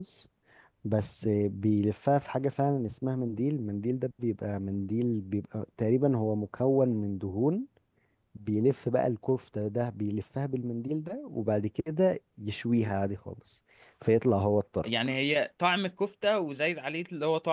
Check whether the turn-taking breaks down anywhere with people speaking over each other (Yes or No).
No